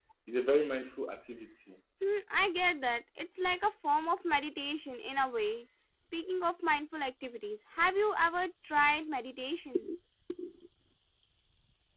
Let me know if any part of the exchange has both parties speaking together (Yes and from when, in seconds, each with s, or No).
No